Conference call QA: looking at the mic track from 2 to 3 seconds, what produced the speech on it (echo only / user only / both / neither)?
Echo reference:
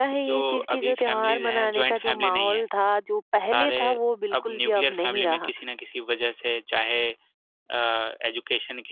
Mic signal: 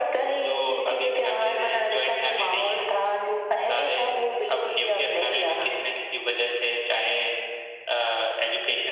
echo only